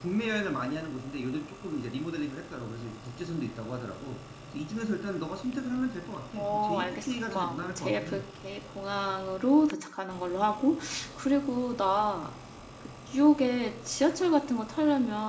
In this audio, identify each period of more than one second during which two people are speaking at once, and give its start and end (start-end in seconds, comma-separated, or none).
6.4-8.2